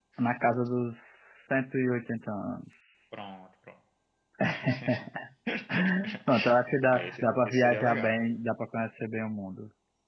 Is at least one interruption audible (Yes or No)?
Yes